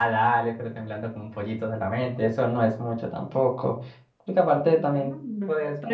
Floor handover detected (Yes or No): Yes